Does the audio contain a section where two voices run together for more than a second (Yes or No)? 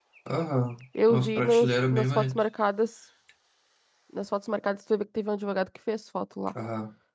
Yes